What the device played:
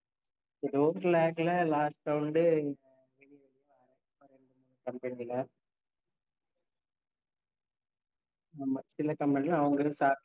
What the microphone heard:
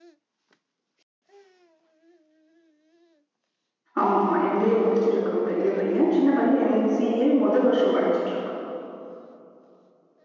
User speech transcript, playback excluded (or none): ஆமா ஆமா எம் பி ஏ முடுச்சிருக்கா பெரிய பைய சின்ன பைய எம் சி ஏ மொத வருஷோ படிச்சிட்டு இருக்கா